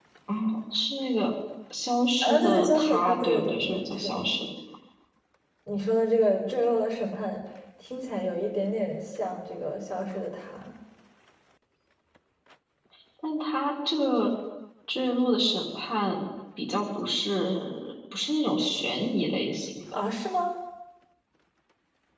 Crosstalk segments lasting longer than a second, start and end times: 2.2-4.3

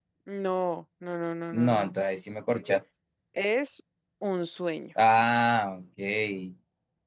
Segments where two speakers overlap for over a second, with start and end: none

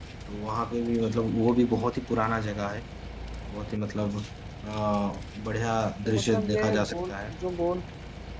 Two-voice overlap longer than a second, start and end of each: 6.0-7.3

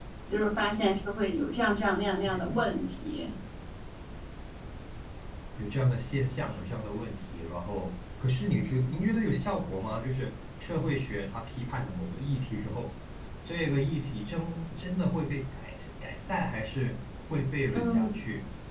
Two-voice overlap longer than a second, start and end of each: none

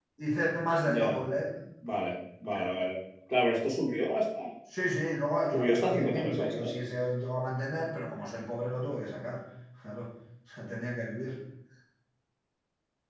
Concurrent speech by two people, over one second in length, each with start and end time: 5.5-6.7

